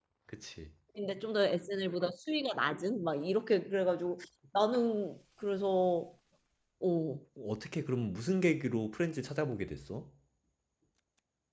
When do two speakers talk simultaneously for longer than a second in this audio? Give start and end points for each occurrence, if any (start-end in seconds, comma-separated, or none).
none